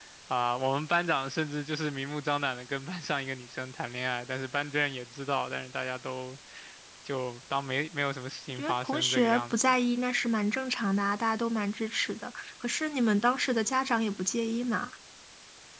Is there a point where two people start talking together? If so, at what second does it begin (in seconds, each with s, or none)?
8.5 s